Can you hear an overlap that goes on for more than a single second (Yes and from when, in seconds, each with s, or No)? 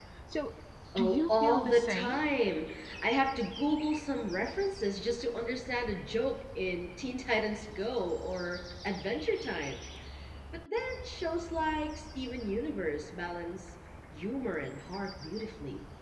Yes, from 1.0 s